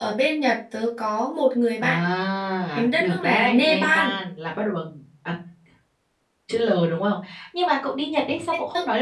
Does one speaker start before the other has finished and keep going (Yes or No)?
Yes